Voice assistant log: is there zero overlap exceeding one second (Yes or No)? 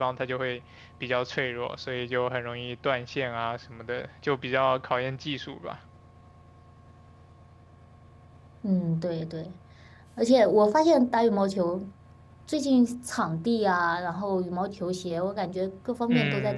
Yes